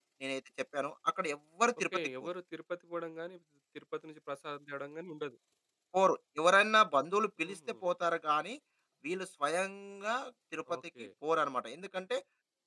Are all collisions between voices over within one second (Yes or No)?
Yes